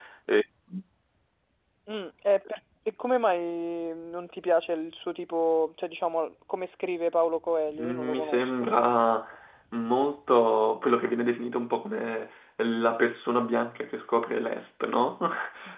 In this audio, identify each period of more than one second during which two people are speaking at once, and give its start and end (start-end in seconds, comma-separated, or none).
7.8-9.1